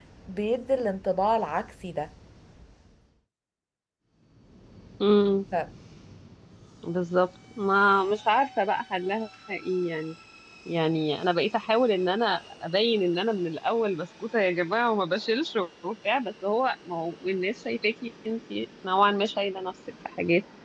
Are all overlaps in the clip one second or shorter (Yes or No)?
Yes